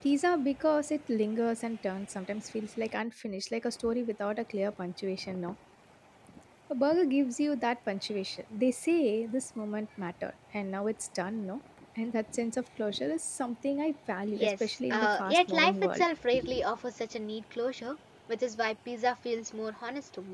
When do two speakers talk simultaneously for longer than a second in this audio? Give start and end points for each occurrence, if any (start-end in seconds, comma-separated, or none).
14.3-16.1